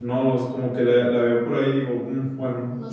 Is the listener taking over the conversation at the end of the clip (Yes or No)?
Yes